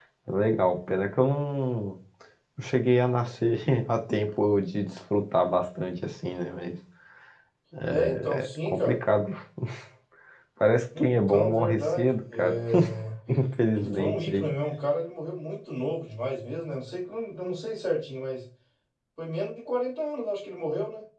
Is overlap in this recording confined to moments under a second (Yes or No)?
No